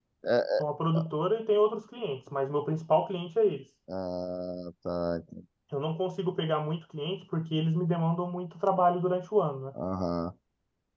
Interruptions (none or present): none